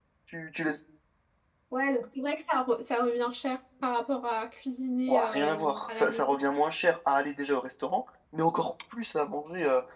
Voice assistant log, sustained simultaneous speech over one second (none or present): present